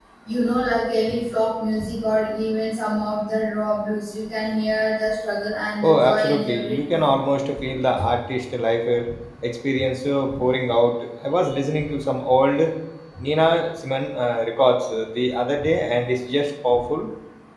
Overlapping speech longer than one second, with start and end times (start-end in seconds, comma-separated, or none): 5.8-7.1